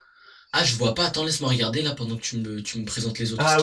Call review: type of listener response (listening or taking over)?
taking over